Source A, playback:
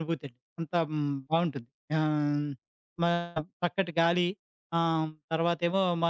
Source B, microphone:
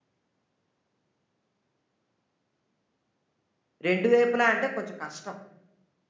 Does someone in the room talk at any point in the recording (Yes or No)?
Yes